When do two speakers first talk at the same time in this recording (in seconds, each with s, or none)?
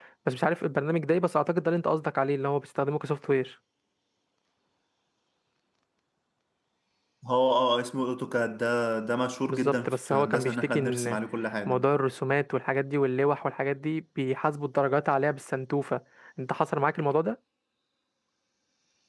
9.5 s